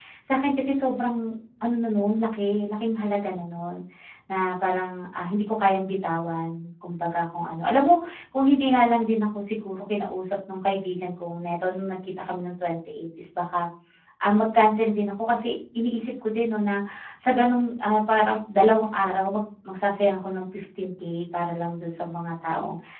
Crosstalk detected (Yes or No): No